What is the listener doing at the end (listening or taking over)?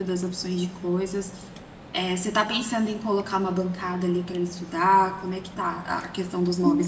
taking over